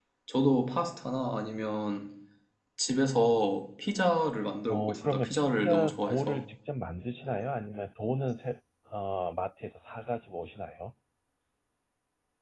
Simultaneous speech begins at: 5 s

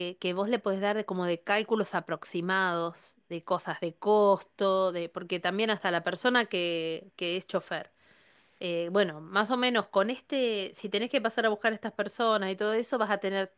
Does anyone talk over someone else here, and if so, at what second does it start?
none

